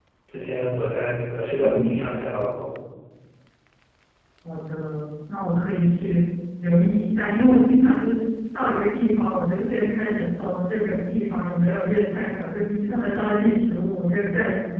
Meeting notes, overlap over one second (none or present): none